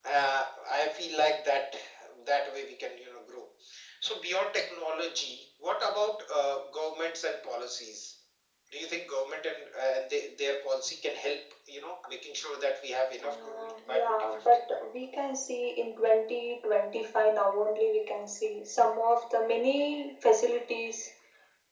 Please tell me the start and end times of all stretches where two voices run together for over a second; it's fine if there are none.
13.2-14.5

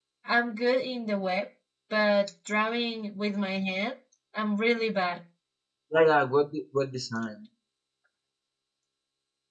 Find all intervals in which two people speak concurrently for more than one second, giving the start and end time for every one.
none

